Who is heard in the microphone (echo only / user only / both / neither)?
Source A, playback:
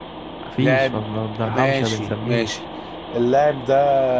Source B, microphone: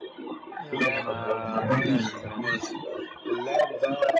both